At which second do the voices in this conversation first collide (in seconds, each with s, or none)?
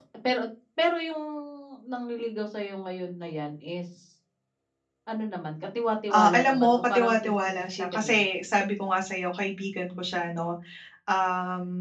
6.1 s